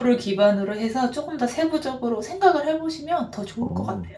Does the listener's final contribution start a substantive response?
Yes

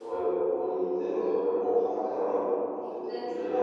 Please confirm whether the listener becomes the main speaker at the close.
No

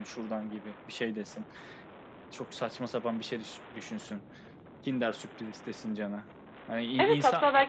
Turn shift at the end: Yes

